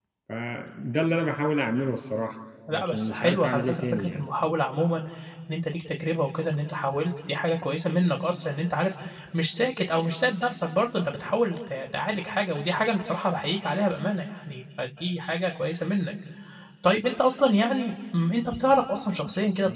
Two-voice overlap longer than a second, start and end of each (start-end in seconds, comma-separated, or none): 2.7-4.2